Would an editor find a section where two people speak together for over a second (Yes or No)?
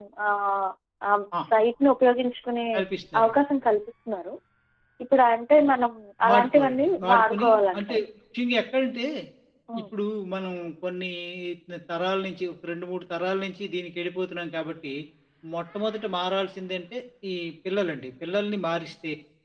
Yes